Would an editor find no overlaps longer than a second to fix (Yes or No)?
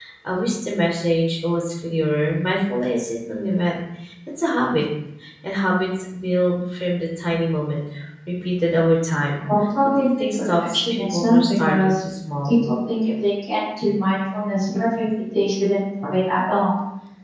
No